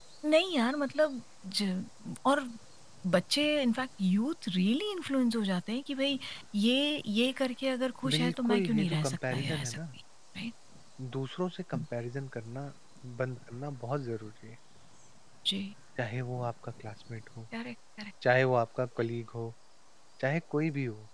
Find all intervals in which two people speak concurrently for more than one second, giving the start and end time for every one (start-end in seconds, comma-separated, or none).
8.1-9.8